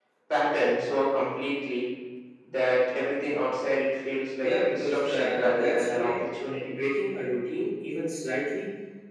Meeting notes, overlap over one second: present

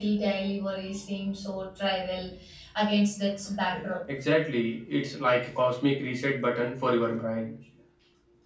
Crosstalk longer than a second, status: none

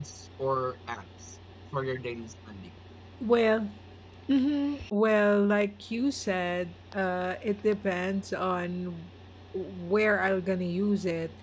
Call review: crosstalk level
none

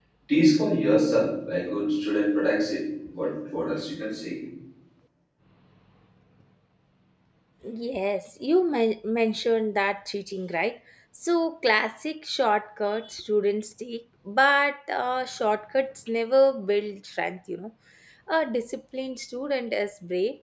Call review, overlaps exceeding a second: none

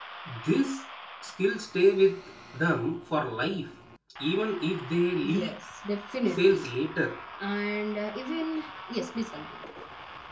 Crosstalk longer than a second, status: none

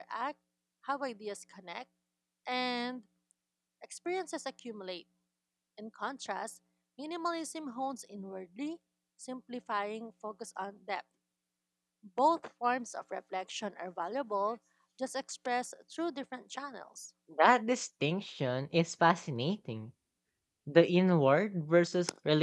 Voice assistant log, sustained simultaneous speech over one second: none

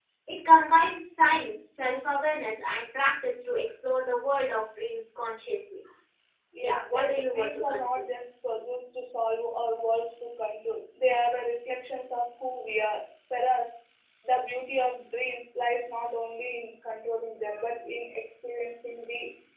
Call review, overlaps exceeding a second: present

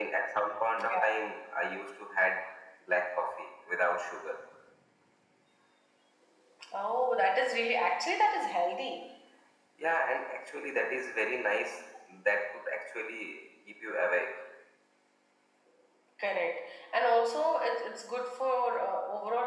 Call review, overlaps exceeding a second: none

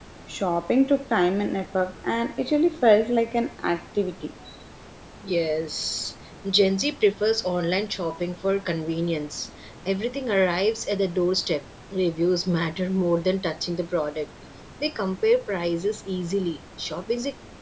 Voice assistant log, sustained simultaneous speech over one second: none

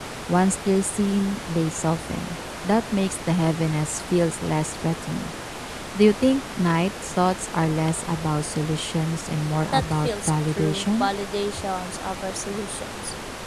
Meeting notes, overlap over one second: present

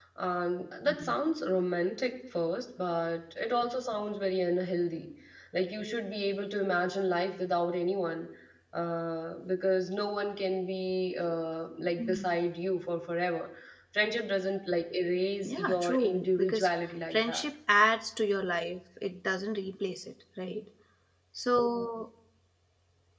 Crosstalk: present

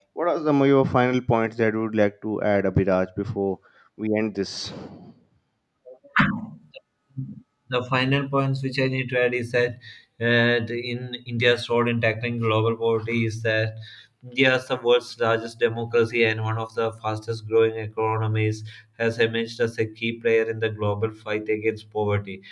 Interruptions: none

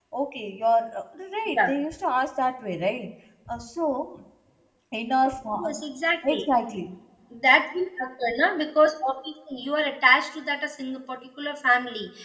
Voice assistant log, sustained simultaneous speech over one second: none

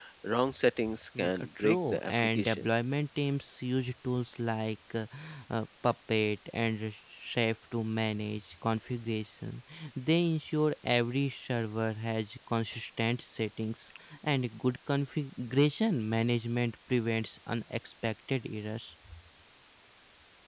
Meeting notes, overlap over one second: present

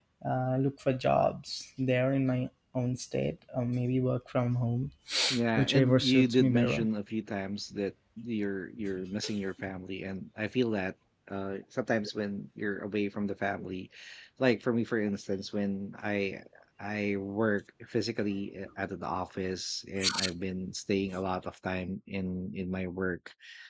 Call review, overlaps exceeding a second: present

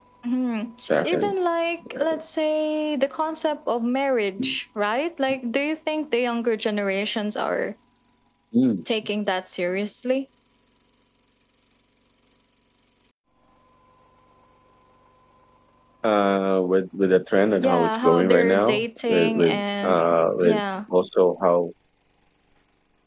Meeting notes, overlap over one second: present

